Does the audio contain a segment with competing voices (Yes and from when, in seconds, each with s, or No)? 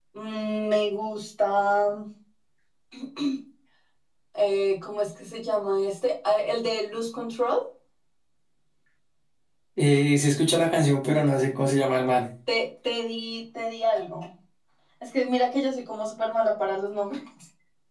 No